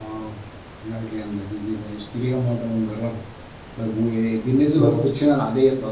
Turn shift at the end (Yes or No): No